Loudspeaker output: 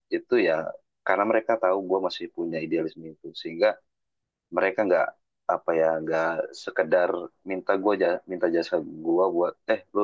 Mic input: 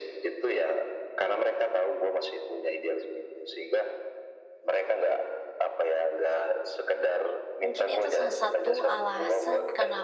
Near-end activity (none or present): present